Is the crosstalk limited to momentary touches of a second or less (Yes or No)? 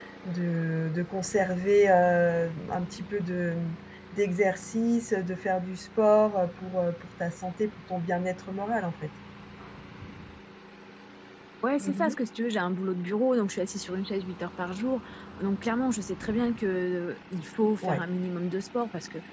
Yes